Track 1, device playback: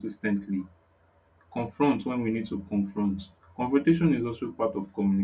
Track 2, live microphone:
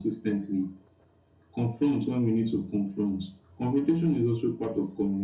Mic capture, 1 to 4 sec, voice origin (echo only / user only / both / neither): echo only